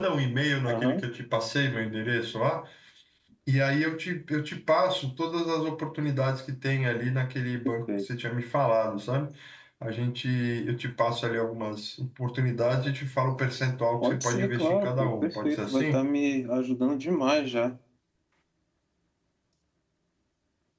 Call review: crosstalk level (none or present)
present